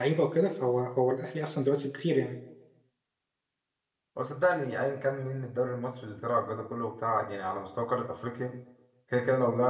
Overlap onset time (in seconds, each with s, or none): none